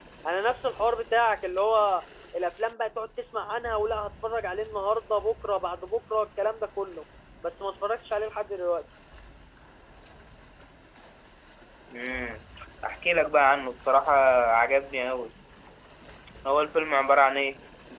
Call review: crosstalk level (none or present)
none